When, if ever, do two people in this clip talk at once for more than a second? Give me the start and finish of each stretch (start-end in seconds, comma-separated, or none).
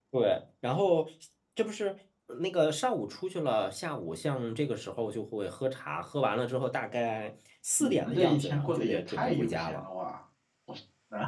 7.8-9.8